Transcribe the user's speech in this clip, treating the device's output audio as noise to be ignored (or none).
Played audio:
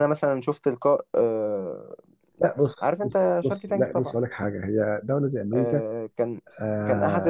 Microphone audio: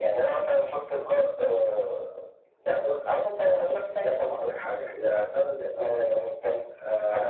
none